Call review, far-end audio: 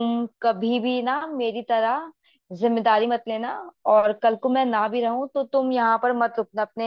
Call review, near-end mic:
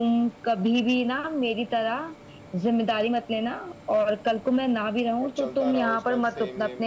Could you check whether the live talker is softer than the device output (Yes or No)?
Yes